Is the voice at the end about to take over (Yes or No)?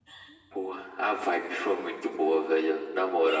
Yes